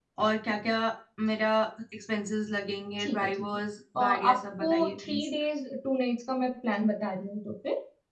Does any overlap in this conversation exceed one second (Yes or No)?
Yes